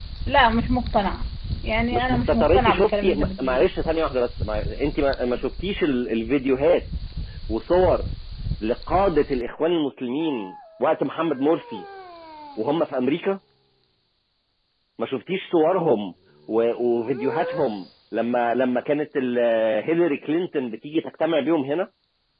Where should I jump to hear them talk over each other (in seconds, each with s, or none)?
1.9 s